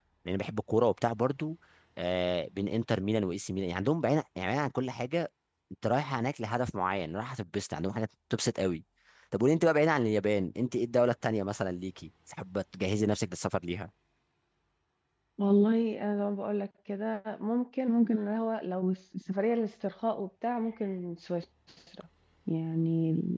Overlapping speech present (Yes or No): No